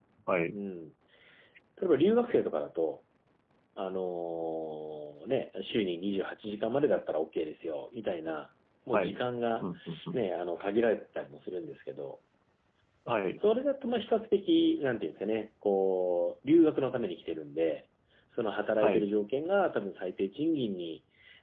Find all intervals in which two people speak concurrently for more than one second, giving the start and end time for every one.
none

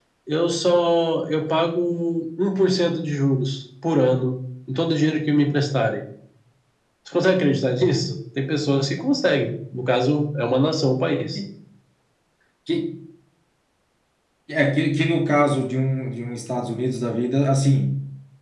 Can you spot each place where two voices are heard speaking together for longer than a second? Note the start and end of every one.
none

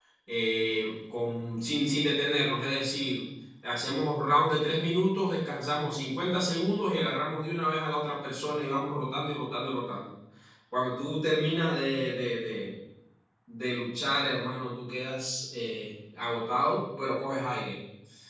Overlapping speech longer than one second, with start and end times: none

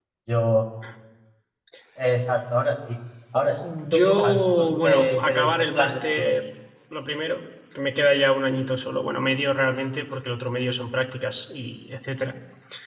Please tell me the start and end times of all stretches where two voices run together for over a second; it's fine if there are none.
3.8-6.4

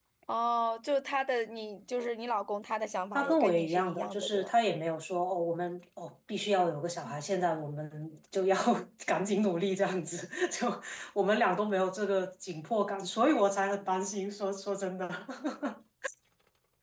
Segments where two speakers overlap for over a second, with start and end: 3.1-4.5

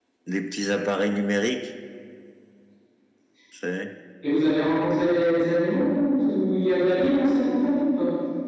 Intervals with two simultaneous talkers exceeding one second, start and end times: none

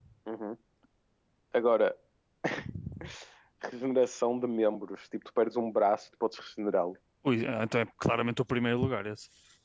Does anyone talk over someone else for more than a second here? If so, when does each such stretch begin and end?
none

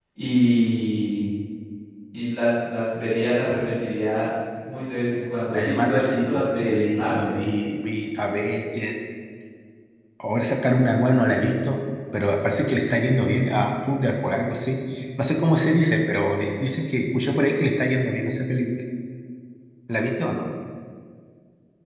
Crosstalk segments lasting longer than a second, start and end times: 5.5-7.4

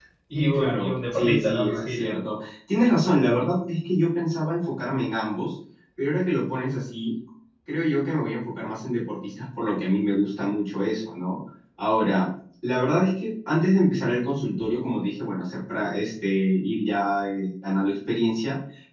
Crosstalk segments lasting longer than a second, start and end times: 0.5-2.1

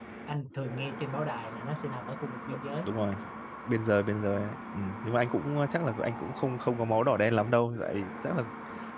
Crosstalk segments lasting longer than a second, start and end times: none

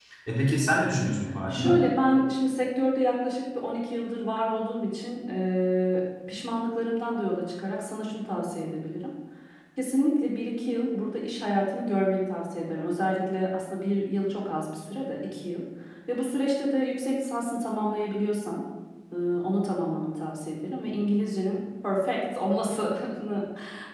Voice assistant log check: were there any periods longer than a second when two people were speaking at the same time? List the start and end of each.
none

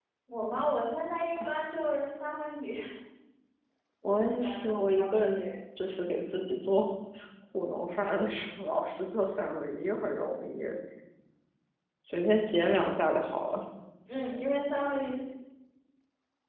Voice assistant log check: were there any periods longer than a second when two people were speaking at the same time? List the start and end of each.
4.0-5.4

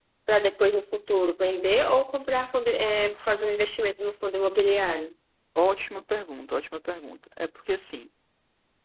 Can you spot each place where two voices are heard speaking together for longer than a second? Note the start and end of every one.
none

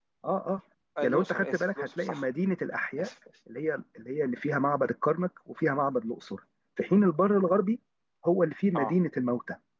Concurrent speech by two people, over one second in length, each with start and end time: 1.0-2.2

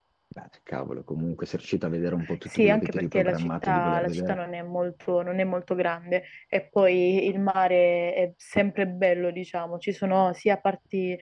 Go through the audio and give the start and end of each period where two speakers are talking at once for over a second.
2.5-4.4

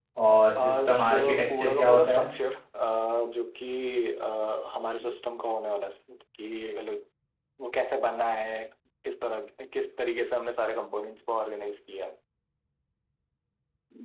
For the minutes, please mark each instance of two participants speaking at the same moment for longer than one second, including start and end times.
0.6-2.3

